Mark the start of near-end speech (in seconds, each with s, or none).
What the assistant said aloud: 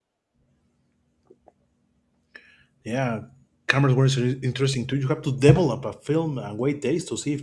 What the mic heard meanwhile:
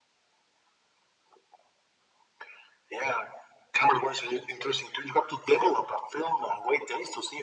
none